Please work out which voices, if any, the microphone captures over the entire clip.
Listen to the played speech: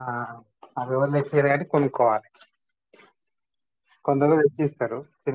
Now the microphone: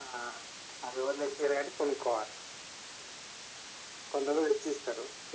echo only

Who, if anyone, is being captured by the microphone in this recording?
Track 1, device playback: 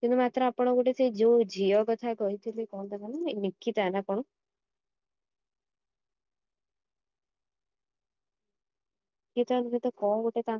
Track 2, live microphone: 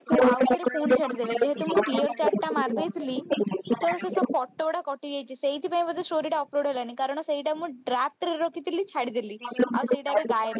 both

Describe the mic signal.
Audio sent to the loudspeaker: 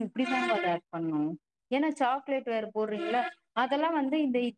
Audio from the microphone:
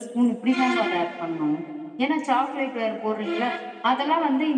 echo only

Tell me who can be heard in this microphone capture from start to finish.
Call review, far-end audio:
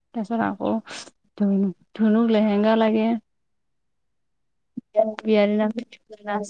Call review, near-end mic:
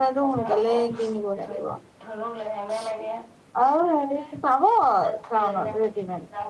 both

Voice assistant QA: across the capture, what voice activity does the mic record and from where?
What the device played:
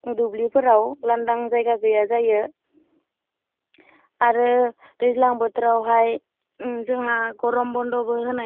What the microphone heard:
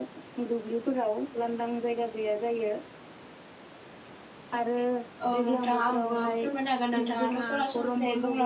both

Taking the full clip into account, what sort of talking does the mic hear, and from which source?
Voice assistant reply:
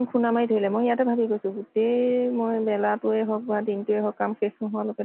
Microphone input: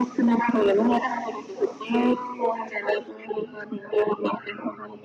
echo only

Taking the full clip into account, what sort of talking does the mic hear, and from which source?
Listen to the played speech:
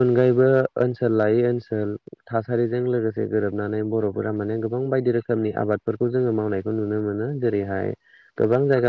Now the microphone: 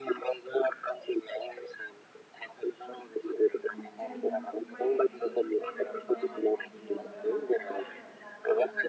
both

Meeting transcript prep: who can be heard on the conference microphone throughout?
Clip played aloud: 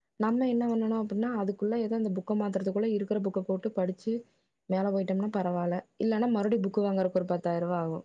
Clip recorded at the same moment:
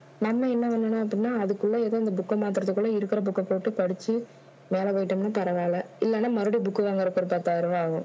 echo only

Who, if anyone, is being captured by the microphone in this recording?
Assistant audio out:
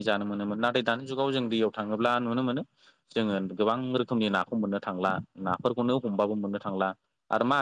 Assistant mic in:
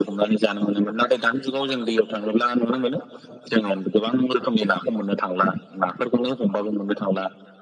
echo only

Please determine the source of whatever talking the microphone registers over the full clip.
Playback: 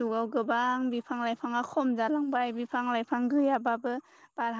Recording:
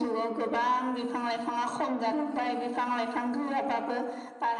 echo only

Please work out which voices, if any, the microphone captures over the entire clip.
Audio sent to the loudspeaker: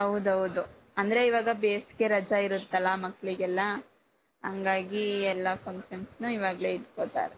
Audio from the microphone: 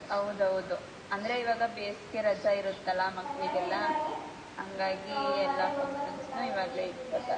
both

